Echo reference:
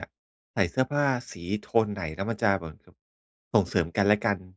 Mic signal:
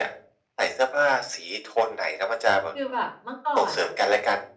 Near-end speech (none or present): present